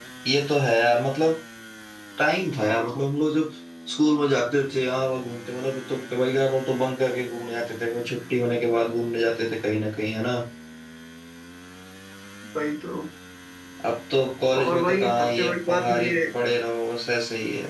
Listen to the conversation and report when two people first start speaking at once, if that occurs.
14.6 s

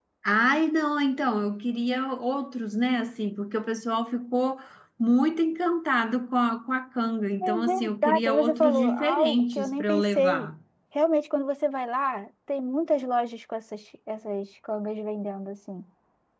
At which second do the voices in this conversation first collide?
7.4 s

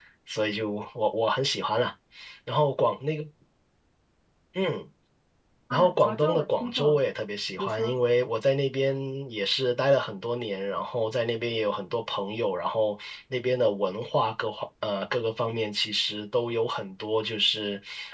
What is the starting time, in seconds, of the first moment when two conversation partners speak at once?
5.7 s

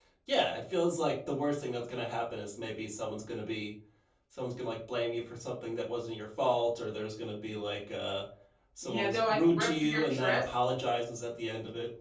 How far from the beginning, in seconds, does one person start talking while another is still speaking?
8.8 s

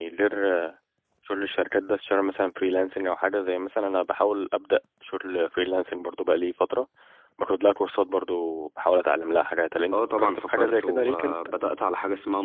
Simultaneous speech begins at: 9.9 s

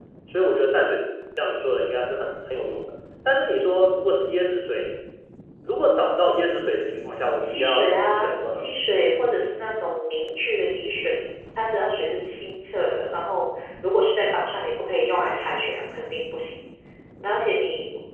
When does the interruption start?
7.4 s

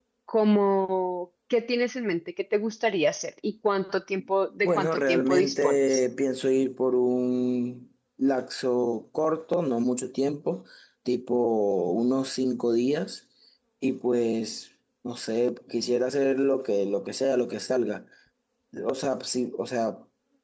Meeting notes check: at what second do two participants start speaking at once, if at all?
4.6 s

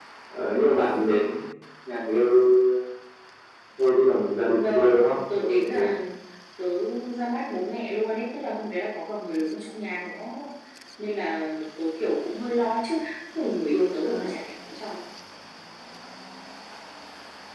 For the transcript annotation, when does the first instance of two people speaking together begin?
4.6 s

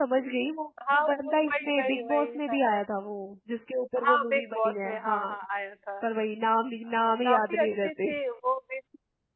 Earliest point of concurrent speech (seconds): 0.9 s

